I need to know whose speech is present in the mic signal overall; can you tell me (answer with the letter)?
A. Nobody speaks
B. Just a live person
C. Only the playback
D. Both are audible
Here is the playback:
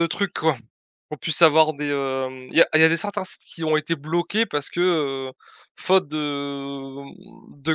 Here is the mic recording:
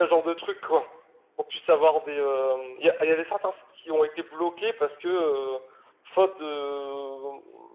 C